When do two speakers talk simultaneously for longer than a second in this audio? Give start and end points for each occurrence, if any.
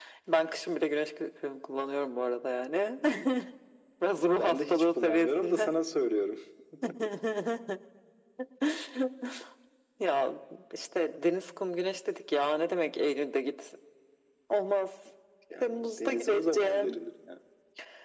4.3-5.7, 15.6-17.0

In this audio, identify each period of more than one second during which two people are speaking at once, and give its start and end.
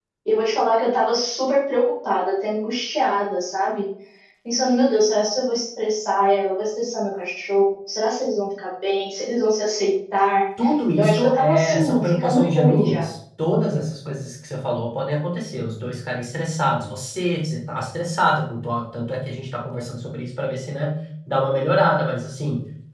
11.0-13.0

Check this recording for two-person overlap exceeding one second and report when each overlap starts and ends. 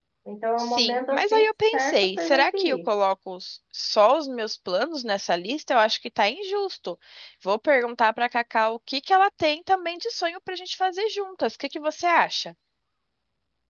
0.6-2.9

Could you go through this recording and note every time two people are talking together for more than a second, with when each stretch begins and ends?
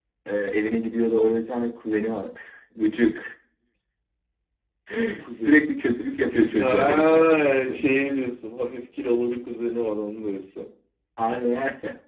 6.6-7.8

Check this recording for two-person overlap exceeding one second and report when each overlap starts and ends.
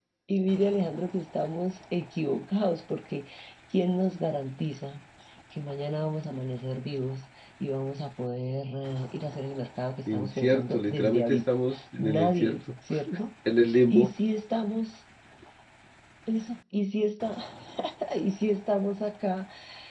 10.1-12.6

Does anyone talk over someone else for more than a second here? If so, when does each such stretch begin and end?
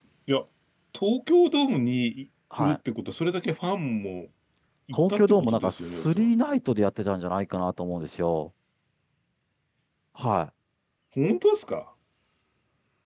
4.9-6.3

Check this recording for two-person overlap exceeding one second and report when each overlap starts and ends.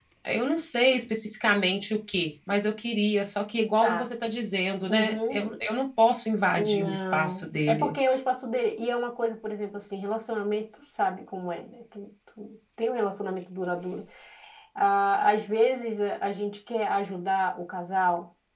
6.6-7.9

